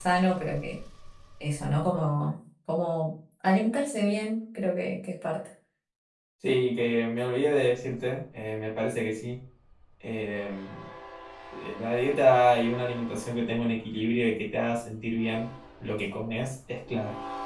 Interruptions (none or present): none